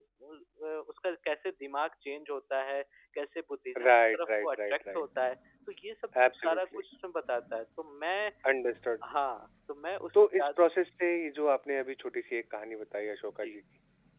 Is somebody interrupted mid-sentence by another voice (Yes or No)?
Yes